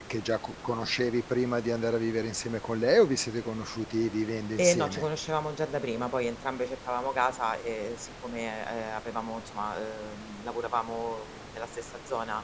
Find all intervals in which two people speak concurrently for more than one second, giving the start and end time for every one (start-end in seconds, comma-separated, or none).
none